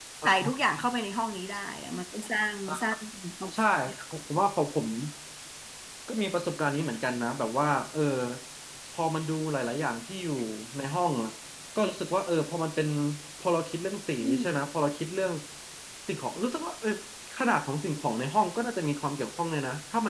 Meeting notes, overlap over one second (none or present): none